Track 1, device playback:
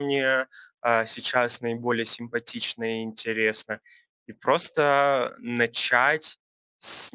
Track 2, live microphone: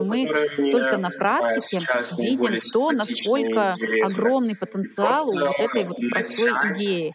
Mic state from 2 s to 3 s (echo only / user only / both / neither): both